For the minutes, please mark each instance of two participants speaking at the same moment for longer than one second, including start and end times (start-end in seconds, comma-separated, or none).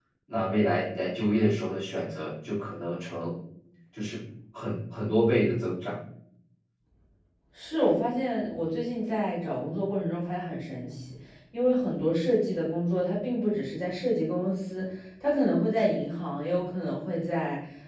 none